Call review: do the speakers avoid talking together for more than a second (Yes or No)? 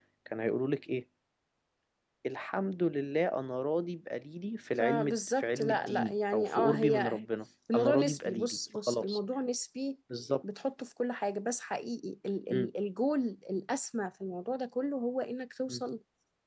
No